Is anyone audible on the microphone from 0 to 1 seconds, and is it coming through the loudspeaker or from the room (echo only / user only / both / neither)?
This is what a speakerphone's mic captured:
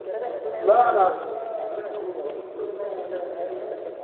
both